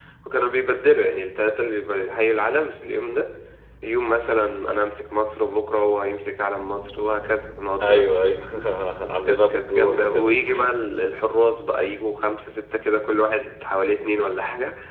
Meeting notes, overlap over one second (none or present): present